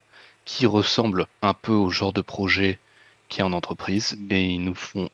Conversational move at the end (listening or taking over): listening